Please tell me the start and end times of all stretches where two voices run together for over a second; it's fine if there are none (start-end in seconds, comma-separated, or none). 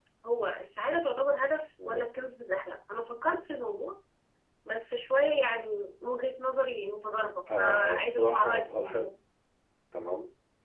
7.6-9.0